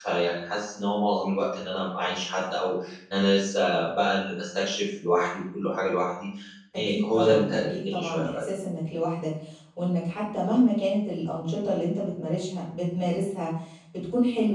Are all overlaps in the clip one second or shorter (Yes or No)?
No